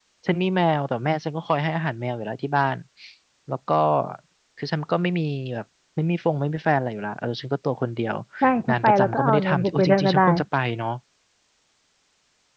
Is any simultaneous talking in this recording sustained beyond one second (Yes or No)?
Yes